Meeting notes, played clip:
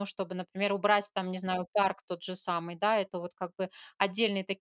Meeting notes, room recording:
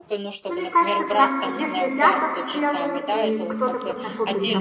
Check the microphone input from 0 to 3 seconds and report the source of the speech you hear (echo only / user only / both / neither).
both